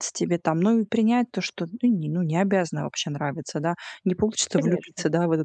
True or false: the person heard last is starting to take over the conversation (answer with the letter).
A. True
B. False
B